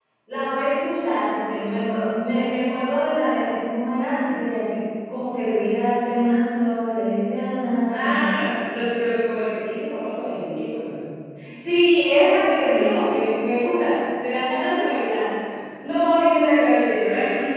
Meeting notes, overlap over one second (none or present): none